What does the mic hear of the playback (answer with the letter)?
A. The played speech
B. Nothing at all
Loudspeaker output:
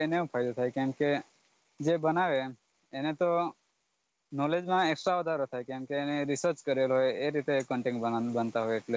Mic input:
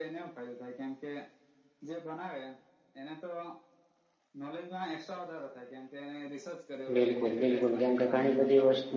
A